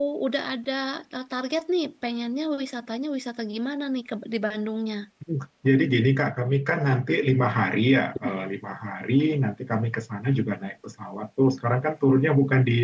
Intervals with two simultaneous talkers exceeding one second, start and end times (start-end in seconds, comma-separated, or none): none